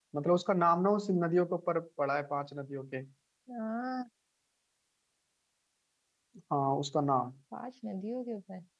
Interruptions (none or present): none